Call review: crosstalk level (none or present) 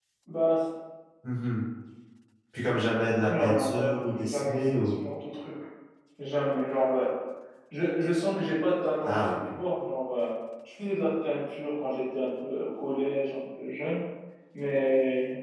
present